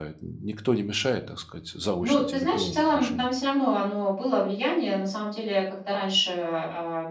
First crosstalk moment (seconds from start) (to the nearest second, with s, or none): 2 s